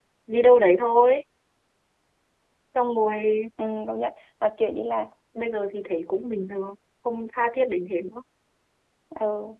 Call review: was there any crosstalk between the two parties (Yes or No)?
No